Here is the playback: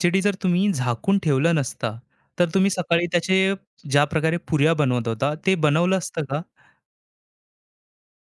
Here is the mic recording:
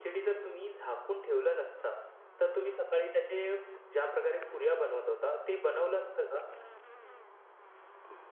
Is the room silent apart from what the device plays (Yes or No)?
Yes